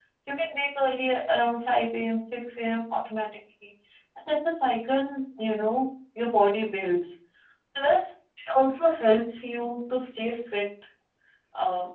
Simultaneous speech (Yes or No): No